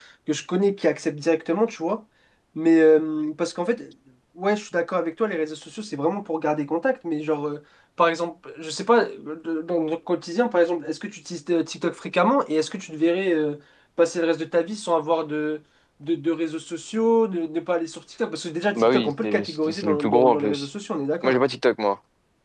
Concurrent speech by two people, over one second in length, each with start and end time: 18.8-20.7

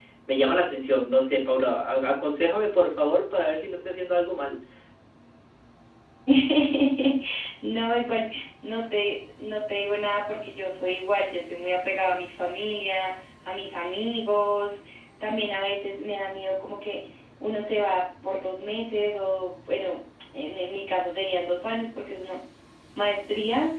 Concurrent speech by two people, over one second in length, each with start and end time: none

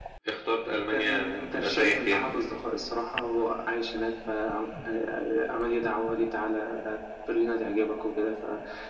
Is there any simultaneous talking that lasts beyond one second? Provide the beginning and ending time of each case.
0.9-2.3

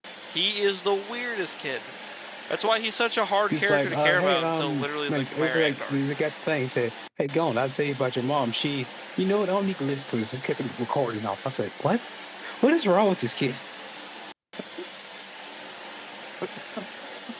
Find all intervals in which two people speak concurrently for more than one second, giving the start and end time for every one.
3.5-6.1

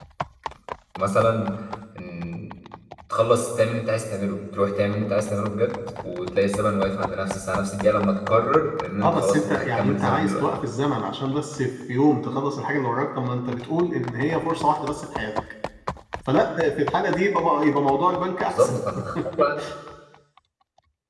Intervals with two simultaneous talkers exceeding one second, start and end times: 9.0-10.4

